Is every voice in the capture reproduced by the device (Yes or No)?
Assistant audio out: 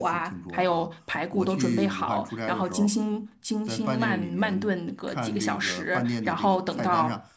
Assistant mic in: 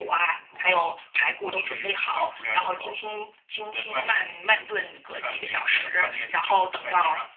Yes